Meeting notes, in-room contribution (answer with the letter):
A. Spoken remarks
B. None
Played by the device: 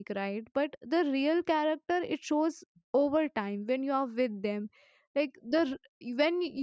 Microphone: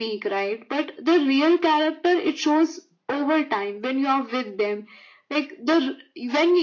B